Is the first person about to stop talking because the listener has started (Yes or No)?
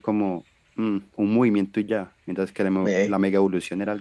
No